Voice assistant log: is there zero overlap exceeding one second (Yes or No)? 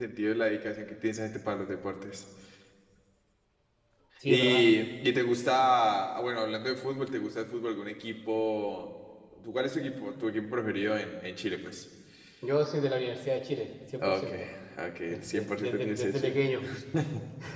No